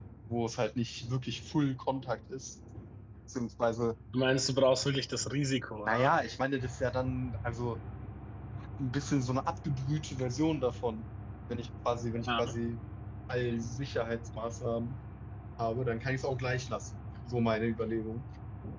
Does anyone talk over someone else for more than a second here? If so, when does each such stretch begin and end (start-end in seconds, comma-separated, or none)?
none